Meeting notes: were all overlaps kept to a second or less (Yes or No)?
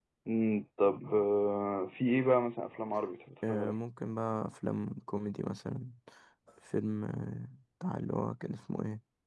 Yes